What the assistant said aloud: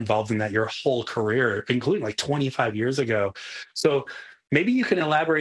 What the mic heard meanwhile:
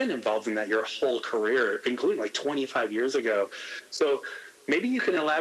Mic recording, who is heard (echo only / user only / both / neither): echo only